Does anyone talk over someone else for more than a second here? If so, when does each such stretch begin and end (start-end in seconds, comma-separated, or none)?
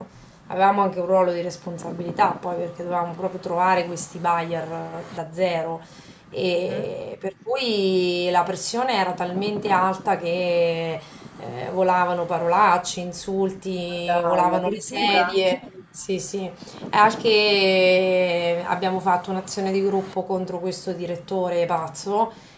14.1-15.4